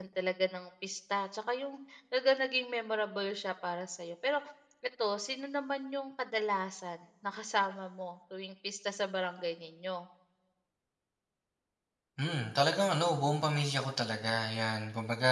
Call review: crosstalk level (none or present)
none